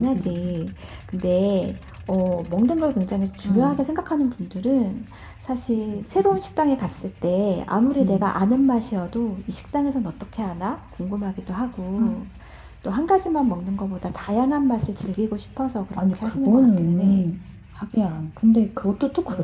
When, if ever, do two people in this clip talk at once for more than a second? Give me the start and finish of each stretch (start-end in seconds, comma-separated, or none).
16.0-17.2